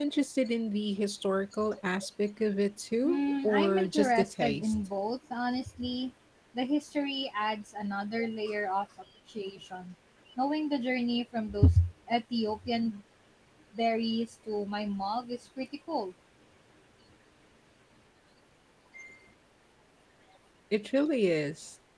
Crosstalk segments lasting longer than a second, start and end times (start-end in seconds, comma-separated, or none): 3.0-4.9